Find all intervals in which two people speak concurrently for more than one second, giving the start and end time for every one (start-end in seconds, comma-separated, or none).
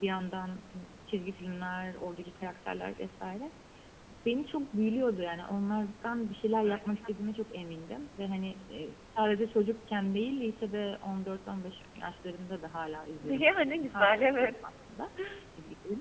13.2-14.5